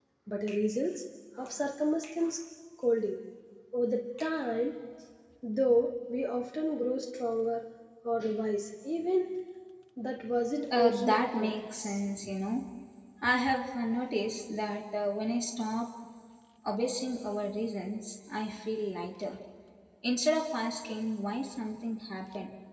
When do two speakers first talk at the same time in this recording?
11 s

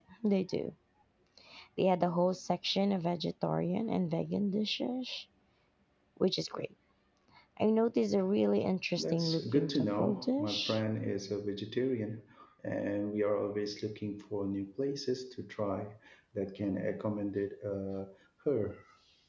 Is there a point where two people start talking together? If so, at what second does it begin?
9 s

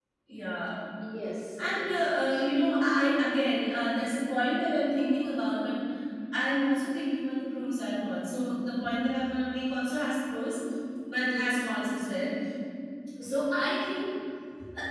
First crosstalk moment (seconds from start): 2 s

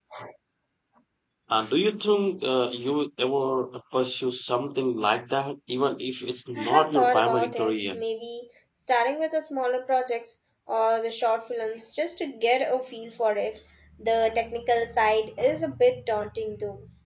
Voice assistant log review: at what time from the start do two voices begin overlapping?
7 s

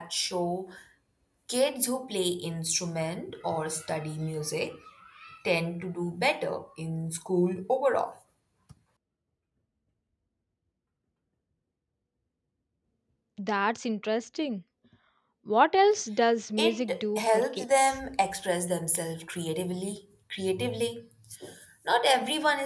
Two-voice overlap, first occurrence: 17 s

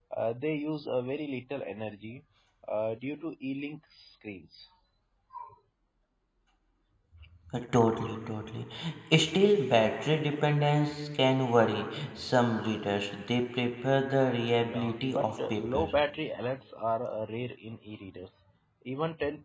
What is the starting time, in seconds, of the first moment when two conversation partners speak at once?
15 s

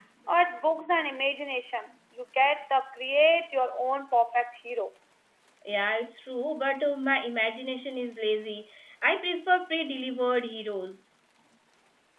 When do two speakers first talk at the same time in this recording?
none

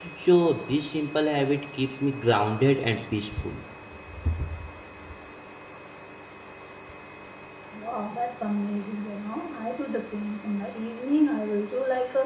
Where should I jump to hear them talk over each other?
none

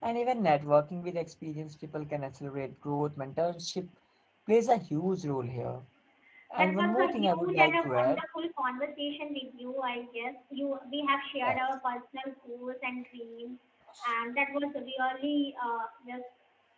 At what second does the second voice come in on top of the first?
7 s

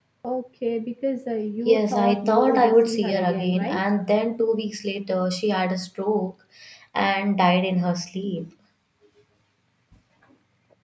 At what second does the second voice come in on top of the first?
2 s

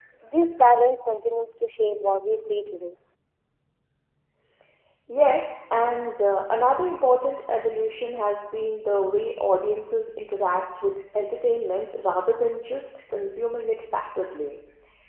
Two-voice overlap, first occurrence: none

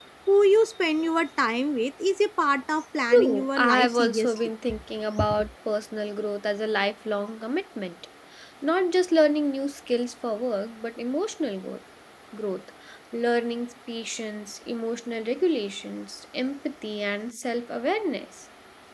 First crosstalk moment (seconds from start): 3 s

